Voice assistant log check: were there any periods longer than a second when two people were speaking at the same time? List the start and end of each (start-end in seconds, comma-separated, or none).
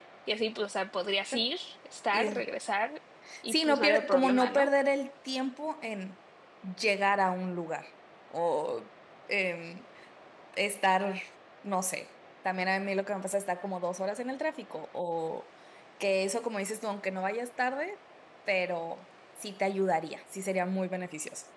3.5-4.7